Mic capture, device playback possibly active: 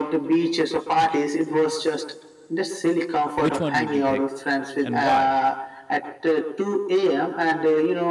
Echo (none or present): present